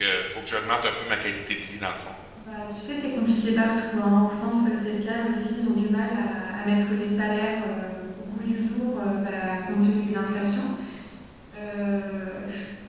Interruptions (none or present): none